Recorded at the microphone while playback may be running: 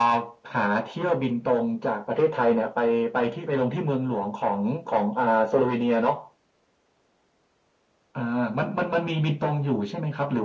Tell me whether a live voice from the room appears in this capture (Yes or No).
No